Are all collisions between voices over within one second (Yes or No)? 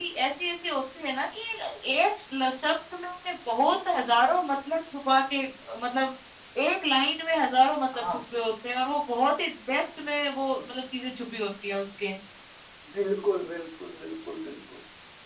Yes